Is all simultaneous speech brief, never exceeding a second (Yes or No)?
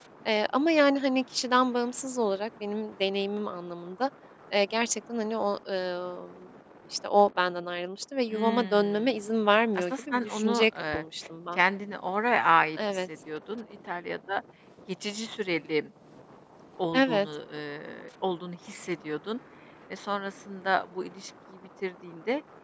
No